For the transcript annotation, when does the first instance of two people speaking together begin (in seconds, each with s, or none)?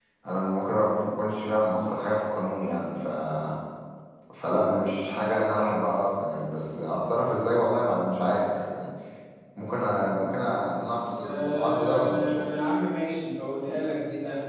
11.2 s